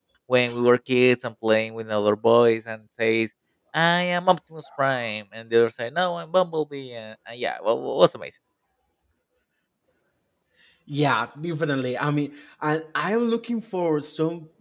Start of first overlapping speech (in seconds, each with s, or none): none